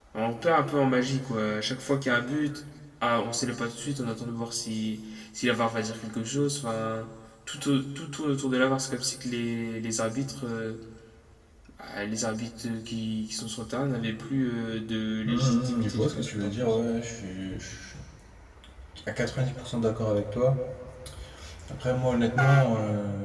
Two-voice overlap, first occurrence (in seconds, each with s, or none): 15.2 s